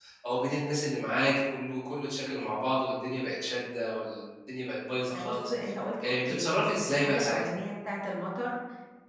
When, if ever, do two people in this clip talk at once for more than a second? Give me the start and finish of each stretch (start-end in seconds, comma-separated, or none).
6.0-7.5